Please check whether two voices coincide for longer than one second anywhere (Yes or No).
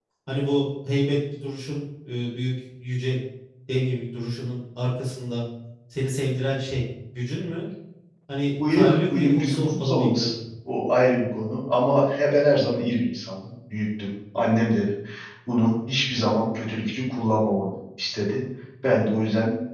Yes